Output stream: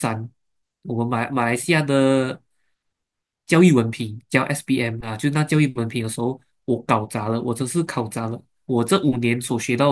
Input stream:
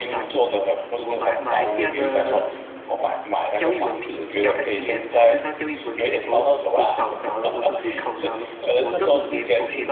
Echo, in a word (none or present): present